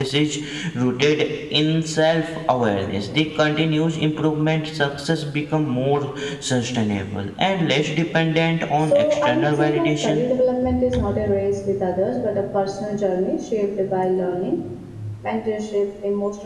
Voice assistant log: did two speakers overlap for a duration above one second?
Yes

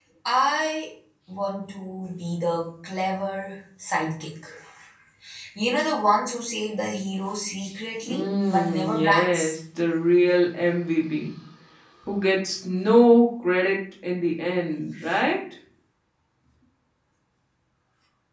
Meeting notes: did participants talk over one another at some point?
Yes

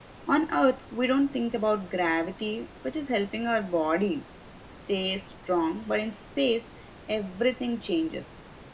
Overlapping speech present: No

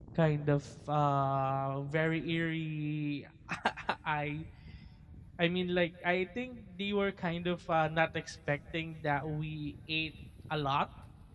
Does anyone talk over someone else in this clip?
No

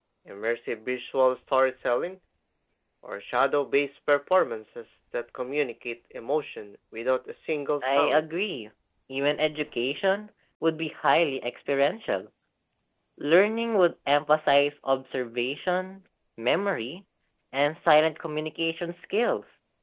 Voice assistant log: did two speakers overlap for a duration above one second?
No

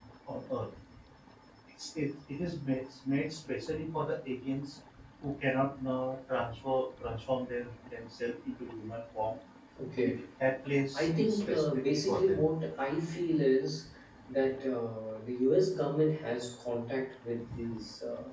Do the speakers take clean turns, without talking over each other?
No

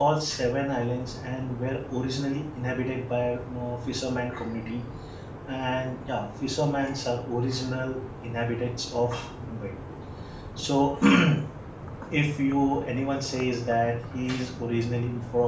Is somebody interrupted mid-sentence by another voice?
No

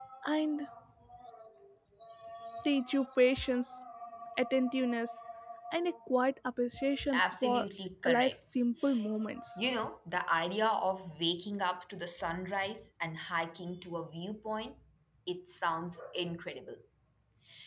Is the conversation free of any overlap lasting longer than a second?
No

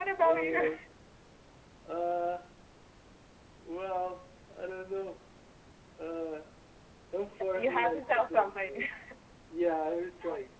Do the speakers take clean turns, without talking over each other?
No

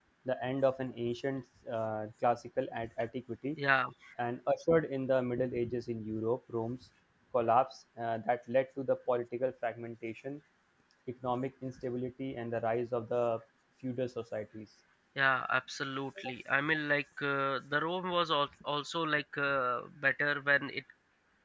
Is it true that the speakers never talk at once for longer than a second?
Yes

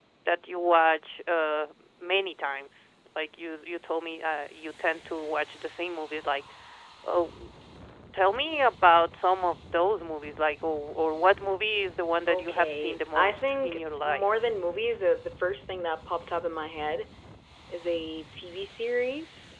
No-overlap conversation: No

